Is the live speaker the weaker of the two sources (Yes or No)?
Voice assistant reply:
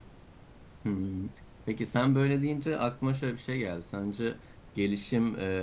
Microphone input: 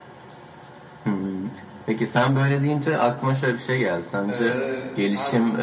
Yes